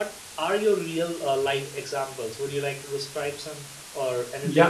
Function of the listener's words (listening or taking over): taking over